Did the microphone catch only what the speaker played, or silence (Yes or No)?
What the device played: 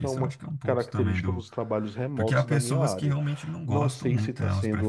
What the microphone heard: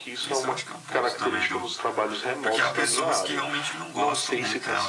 Yes